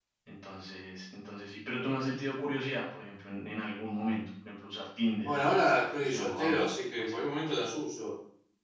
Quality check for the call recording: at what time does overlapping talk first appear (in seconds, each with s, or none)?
5.2 s